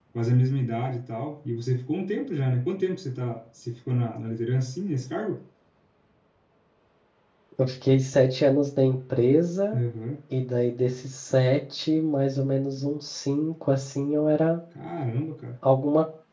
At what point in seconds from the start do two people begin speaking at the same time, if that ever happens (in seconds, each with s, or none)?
none